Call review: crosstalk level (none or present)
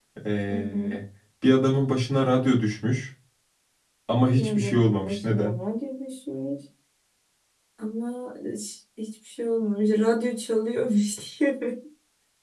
present